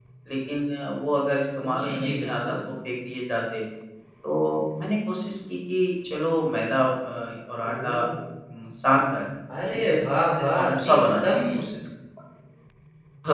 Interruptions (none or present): present